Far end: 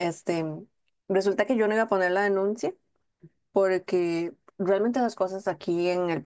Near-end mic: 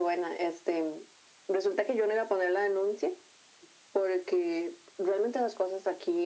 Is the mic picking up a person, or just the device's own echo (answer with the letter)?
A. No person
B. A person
A